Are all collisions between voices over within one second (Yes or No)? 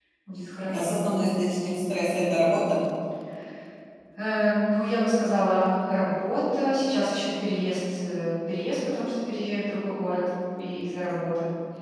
Yes